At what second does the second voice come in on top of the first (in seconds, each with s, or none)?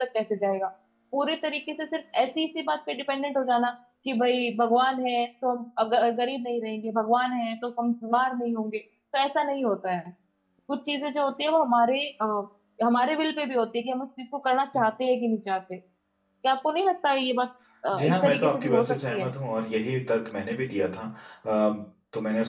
17.9 s